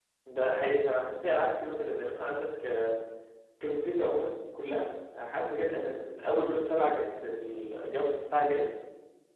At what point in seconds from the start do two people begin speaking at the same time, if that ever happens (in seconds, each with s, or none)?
none